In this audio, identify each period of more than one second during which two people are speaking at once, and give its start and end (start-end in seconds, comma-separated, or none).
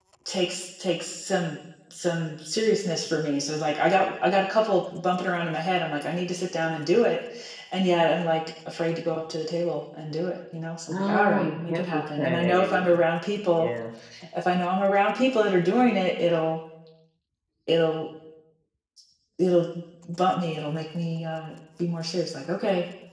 10.9-13.0